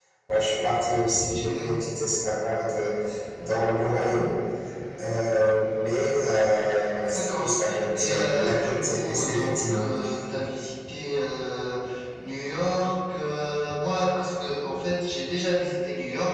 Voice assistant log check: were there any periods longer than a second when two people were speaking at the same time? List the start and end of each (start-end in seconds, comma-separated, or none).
7.1-9.8